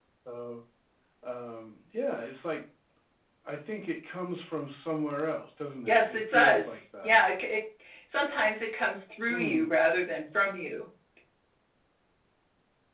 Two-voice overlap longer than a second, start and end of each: 5.9-7.1

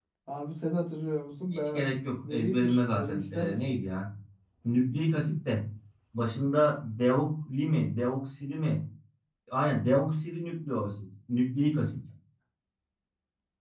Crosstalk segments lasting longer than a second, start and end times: 2.3-3.8

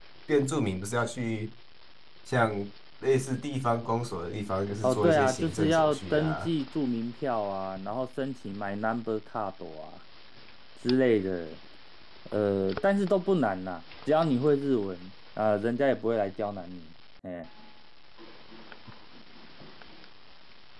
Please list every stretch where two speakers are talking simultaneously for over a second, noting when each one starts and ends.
4.8-6.5

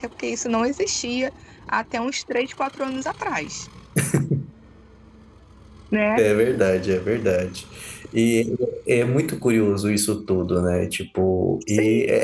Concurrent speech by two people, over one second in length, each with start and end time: none

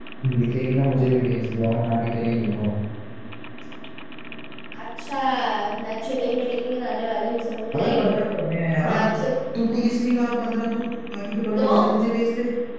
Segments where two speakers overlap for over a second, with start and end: none

